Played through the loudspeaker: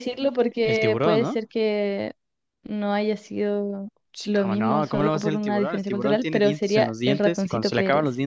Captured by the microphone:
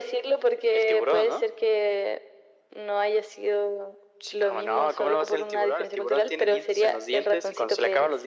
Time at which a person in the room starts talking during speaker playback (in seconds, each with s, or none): none